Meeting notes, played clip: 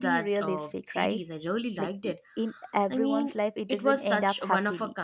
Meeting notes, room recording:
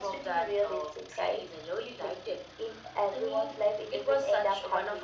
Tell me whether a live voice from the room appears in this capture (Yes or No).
No